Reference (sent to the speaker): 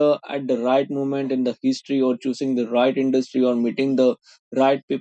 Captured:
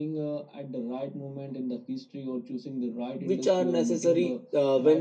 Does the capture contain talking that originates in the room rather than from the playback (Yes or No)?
Yes